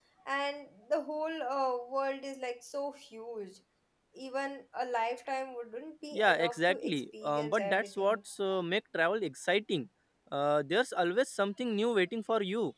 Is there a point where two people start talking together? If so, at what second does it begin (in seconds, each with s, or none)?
6.1 s